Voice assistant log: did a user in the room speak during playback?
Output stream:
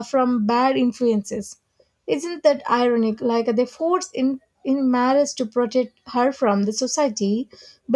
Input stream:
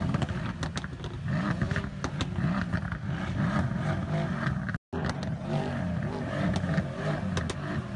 No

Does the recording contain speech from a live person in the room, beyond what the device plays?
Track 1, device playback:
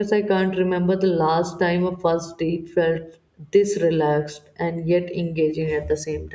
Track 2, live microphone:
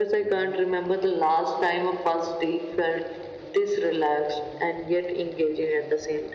No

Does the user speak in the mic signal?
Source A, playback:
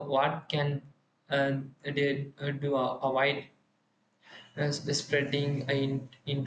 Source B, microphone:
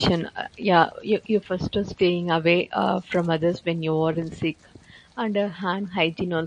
Yes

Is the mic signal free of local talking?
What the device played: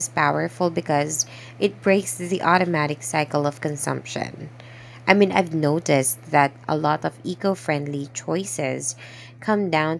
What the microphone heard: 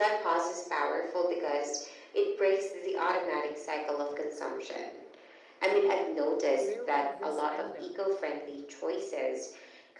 No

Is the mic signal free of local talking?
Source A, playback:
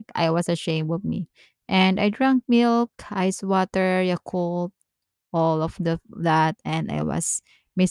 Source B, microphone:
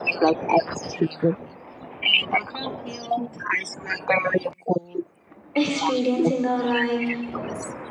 No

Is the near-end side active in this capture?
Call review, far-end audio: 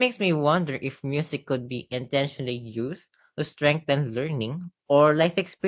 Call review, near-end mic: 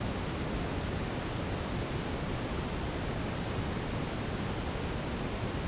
No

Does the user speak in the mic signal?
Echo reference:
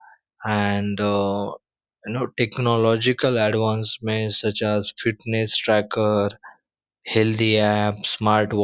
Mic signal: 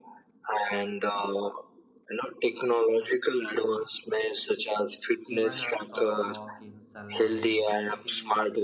Yes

